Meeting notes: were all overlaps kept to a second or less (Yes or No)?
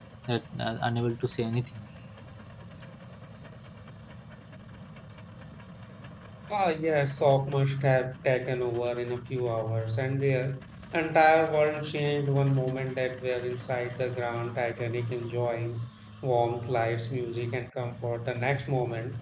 Yes